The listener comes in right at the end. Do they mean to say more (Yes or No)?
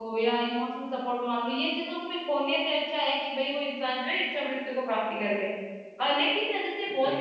No